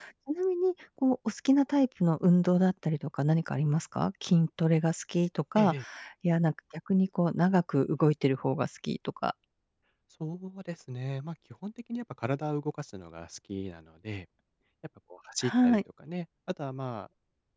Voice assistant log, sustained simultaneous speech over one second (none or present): none